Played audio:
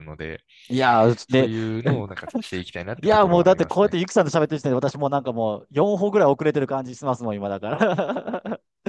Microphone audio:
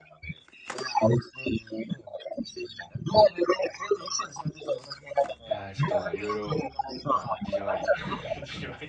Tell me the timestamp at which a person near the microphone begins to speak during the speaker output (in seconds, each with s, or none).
5.5 s